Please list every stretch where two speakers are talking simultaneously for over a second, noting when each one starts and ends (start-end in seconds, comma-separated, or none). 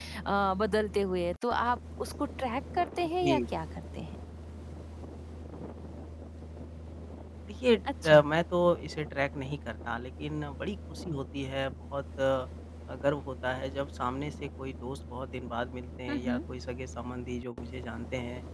none